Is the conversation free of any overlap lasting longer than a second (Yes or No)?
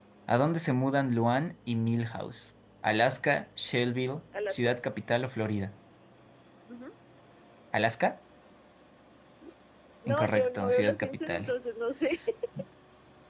No